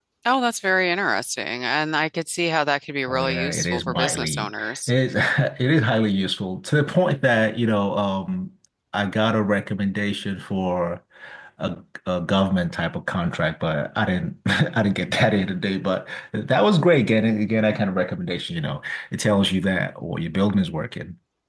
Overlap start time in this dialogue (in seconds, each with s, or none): 3.1 s